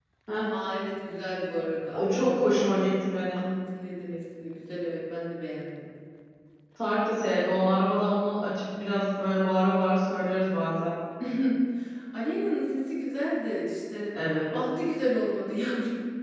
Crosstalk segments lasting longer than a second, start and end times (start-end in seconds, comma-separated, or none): none